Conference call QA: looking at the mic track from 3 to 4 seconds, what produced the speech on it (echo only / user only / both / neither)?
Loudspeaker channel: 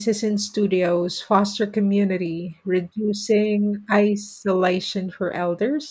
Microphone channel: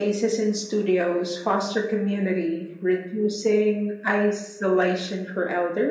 echo only